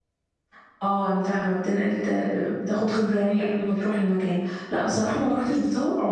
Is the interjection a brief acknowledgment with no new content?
Yes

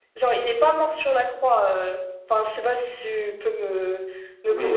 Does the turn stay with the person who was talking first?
No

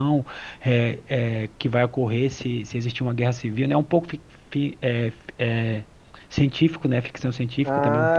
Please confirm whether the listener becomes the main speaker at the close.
Yes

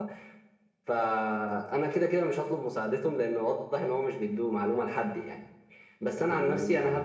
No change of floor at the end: Yes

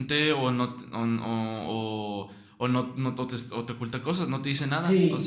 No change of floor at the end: No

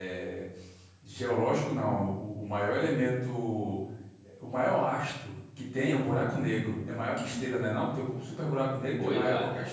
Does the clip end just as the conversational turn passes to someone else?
Yes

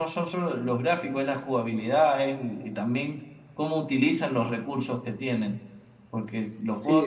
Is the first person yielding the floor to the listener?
Yes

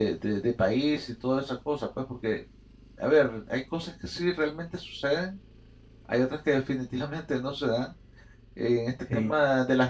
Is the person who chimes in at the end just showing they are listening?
Yes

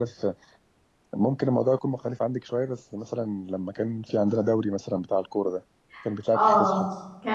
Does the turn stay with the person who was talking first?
No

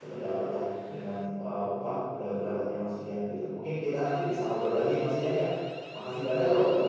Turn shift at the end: No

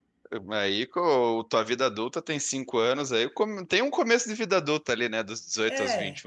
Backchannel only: No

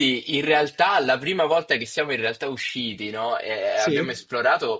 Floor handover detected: No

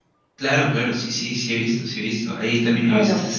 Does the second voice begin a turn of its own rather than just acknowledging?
No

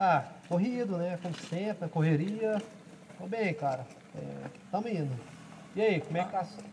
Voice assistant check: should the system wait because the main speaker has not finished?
No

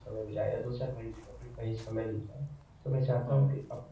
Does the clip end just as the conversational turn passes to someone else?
No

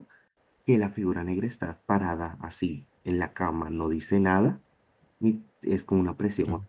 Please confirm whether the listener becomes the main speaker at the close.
No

